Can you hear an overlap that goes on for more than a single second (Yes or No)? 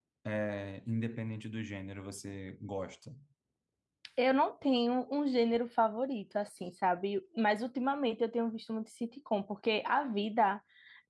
No